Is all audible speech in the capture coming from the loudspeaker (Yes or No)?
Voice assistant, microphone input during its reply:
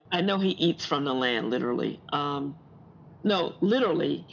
Yes